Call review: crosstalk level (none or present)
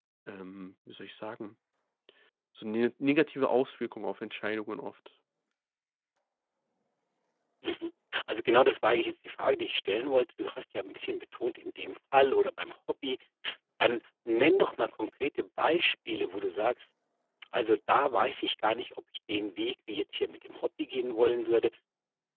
none